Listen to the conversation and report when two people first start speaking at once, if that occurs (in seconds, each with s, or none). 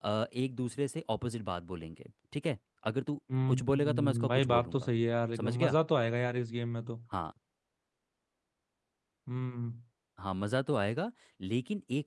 3.5 s